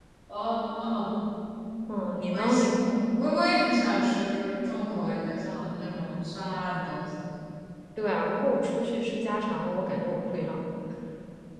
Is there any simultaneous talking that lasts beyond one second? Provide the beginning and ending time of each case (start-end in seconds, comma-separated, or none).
none